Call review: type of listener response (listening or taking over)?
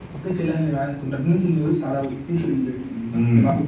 taking over